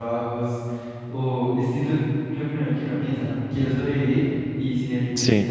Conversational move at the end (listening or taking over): listening